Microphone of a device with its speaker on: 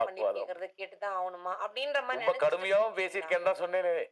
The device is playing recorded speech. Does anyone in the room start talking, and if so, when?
none

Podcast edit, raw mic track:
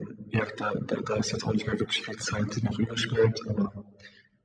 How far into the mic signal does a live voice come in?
none

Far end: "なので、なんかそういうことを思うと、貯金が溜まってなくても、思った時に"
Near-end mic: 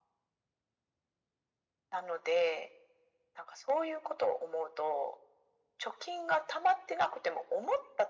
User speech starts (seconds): none

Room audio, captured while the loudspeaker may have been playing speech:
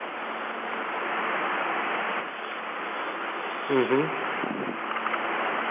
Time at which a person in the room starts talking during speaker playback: 4 s

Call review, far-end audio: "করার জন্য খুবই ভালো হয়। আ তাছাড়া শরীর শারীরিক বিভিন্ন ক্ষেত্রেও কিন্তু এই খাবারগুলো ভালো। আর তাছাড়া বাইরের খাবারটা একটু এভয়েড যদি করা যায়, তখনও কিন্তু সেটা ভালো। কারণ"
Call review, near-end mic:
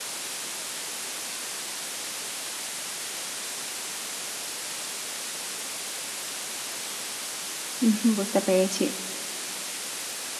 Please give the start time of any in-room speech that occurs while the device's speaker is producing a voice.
8 s

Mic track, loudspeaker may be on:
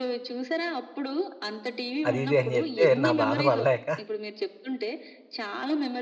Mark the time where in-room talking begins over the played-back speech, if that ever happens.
2 s

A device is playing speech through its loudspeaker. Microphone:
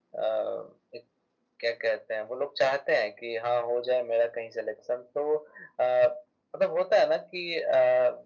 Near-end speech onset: none

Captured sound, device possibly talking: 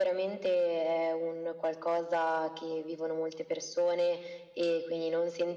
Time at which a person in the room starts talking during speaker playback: none

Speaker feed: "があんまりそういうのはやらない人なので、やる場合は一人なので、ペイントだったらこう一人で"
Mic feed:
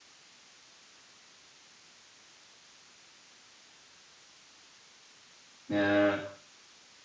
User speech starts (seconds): 6 s

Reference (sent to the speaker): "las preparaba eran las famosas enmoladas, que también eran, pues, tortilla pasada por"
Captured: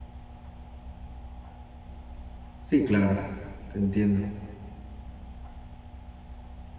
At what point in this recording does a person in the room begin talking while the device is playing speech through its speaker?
3 s

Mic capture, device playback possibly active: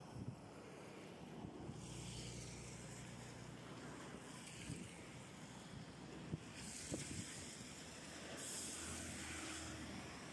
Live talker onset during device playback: none

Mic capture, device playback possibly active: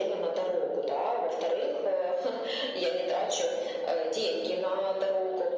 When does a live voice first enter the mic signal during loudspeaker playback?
none

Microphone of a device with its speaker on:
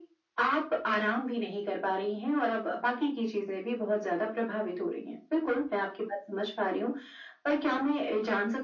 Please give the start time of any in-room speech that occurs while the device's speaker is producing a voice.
none

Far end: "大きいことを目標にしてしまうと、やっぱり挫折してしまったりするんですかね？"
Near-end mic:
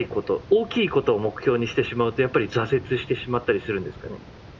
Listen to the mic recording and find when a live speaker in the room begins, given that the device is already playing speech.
none

